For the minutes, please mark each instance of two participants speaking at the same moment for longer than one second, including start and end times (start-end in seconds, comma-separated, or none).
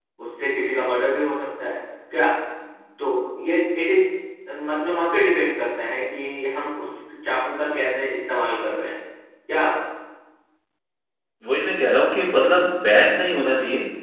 none